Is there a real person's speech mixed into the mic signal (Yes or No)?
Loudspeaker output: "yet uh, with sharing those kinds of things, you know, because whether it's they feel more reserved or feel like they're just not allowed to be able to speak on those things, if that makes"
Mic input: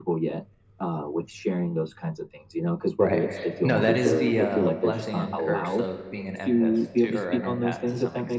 Yes